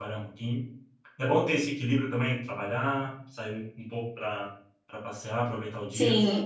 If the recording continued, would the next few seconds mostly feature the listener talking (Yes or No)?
Yes